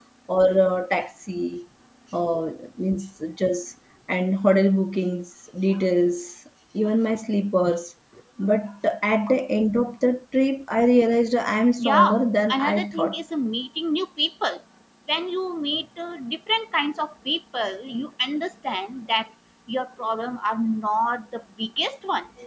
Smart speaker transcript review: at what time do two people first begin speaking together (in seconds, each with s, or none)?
11.8 s